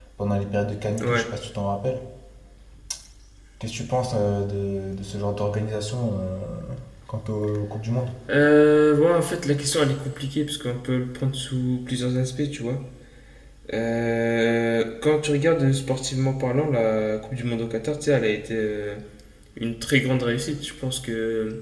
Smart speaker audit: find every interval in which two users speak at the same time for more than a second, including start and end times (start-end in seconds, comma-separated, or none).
none